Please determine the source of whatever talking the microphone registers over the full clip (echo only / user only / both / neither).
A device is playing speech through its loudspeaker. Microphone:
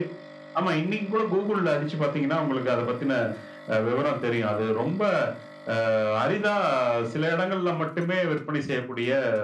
echo only